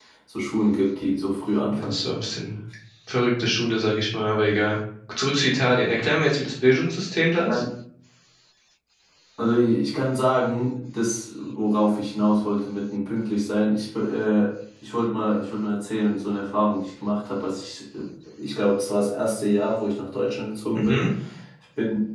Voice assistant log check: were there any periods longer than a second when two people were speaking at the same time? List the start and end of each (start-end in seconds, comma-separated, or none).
none